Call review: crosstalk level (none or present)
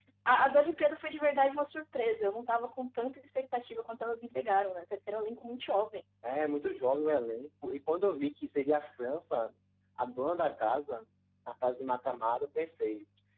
none